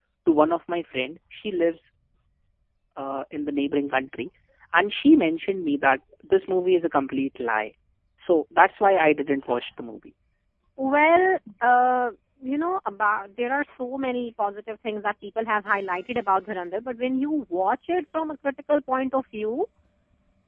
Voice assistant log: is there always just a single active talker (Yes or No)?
Yes